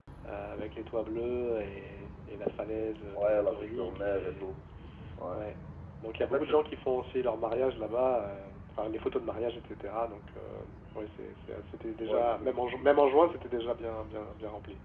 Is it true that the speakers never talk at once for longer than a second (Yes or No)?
No